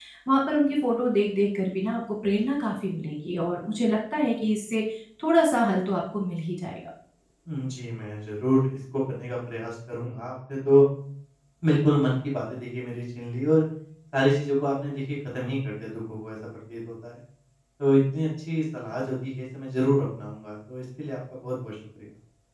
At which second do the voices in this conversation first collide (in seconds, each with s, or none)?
none